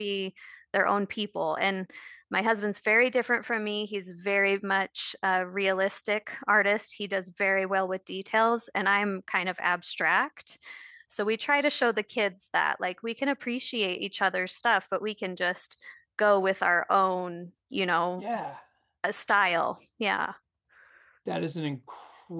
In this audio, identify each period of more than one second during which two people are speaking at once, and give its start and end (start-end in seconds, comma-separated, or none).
none